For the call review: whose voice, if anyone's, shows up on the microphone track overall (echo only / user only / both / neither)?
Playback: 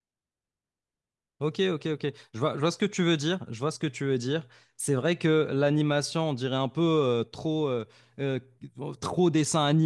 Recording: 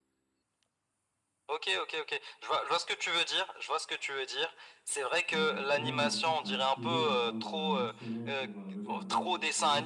both